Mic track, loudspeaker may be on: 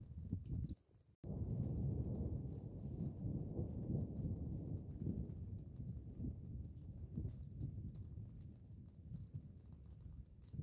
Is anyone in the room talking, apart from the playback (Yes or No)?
No